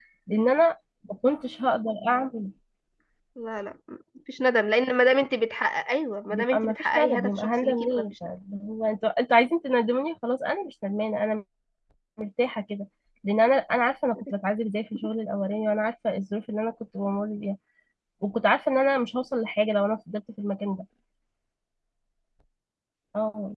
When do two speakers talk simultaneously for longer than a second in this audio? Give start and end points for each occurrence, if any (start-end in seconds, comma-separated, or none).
6.3-8.1